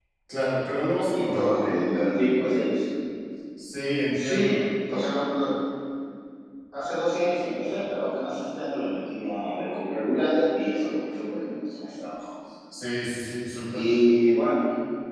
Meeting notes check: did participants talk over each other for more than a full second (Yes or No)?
No